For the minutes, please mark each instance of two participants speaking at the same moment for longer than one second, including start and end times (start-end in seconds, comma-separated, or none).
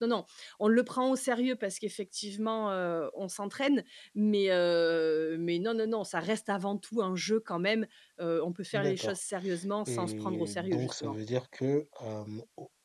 9.9-11.2